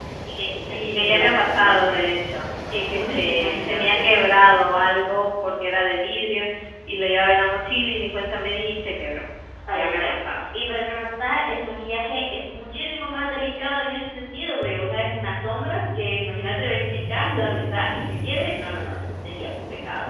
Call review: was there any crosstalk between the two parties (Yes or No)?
Yes